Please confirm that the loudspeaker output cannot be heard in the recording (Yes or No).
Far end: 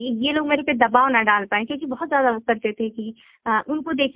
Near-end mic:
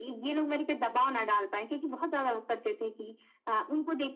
No